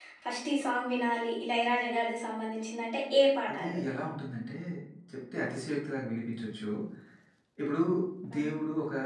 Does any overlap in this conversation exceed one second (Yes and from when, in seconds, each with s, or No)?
No